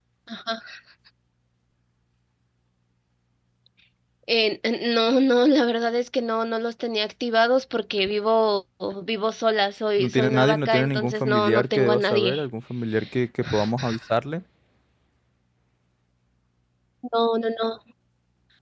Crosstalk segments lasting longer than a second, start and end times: 10.0-12.4

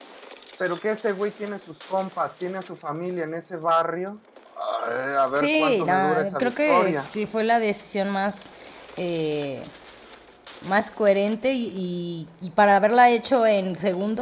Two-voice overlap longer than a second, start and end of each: 5.3-7.1

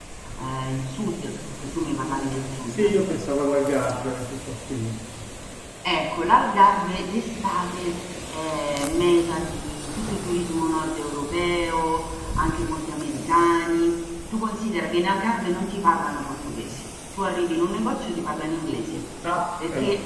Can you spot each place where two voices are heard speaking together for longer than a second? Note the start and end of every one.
none

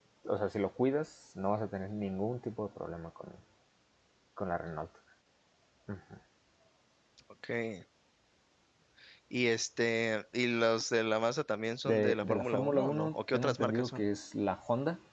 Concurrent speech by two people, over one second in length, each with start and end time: 11.9-14.0

